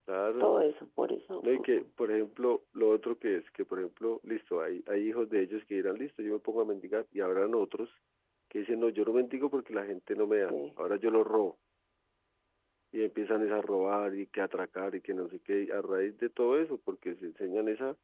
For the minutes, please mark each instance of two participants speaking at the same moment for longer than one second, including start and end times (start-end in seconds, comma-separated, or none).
none